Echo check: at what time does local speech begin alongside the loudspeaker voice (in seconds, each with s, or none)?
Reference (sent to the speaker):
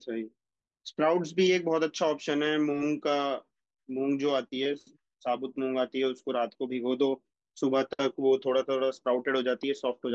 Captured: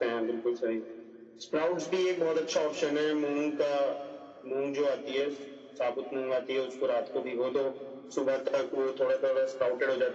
none